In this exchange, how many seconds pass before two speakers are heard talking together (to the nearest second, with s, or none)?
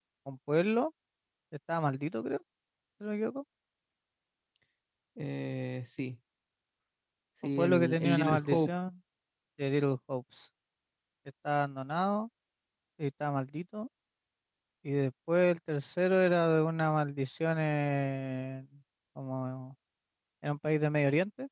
7 s